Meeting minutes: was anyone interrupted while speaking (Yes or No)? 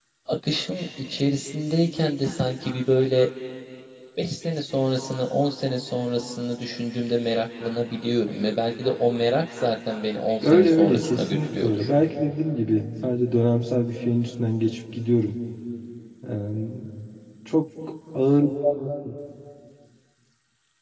Yes